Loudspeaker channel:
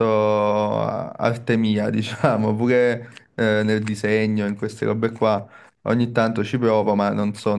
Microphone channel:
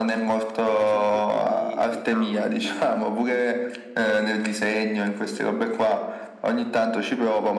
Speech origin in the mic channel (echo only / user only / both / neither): both